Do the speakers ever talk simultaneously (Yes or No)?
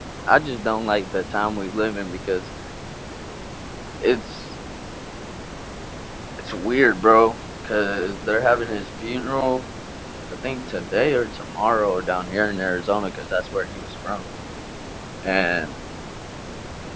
No